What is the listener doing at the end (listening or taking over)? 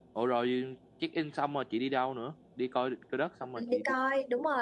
taking over